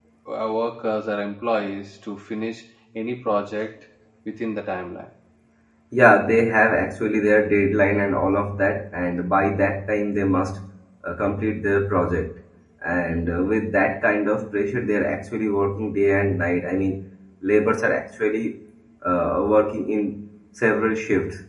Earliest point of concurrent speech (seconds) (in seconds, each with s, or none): none